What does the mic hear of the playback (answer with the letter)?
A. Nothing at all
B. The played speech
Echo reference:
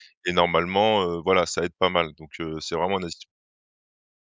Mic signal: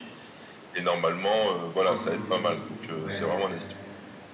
B